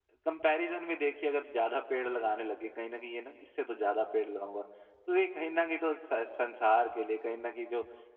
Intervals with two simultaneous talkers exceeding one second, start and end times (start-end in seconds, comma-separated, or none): none